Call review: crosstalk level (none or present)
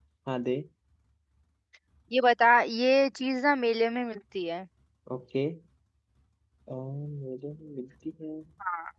none